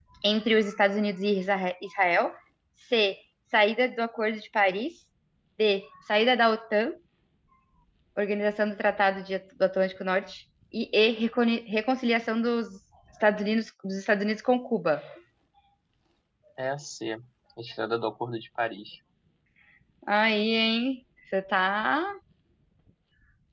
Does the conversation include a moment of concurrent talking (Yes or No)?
No